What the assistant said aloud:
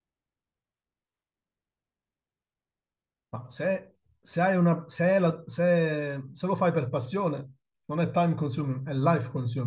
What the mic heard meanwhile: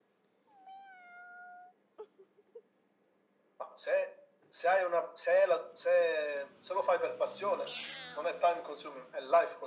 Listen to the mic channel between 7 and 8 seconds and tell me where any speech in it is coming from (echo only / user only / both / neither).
echo only